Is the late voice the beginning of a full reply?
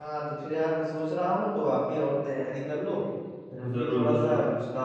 No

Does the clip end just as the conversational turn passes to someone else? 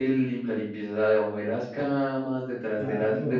No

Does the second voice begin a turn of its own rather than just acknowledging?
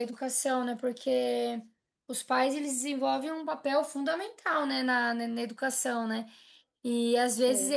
No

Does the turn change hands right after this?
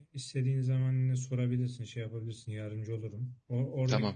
No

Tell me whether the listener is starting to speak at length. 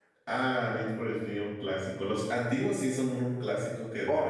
Yes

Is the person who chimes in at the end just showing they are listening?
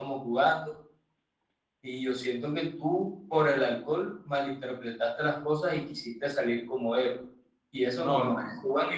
No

